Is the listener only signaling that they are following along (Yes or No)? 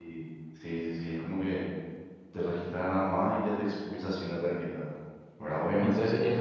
No